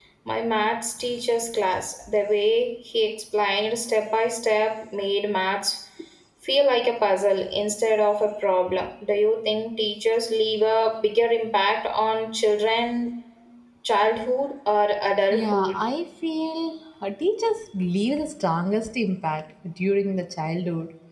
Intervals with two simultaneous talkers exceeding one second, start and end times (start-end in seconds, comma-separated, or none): none